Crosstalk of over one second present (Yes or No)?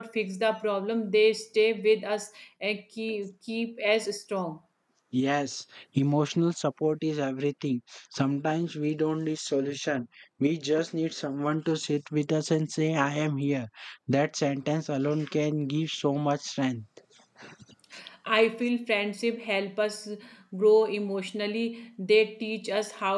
No